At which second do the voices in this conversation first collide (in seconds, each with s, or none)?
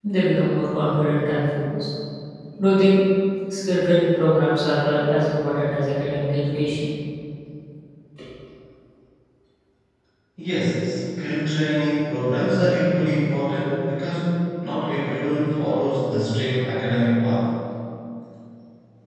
none